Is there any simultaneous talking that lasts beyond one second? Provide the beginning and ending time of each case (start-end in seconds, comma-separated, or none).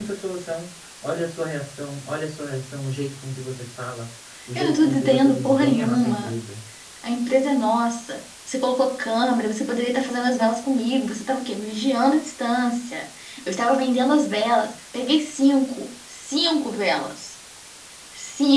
4.6-6.3